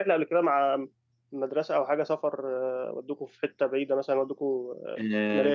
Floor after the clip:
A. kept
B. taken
B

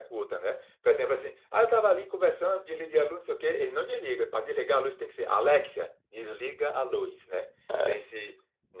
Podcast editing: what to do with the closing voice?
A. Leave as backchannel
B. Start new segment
A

